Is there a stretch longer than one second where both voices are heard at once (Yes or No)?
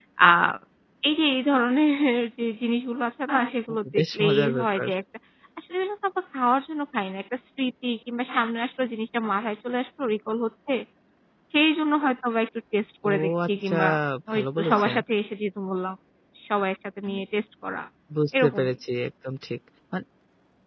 Yes